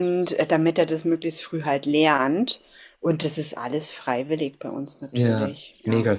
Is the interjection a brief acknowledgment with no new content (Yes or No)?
No